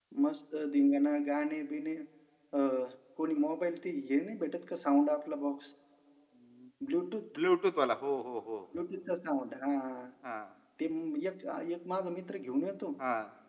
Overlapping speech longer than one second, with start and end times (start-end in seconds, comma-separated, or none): none